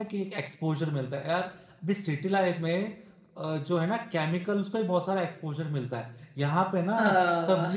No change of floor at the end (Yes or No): Yes